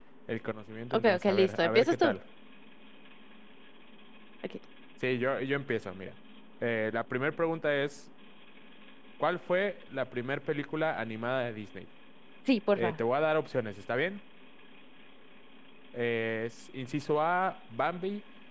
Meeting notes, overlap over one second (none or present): present